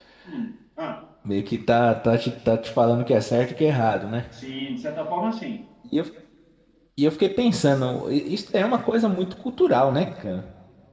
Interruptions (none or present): none